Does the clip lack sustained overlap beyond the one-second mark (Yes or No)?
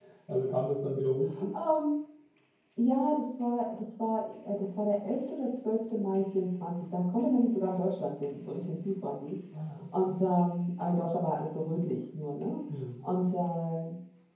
Yes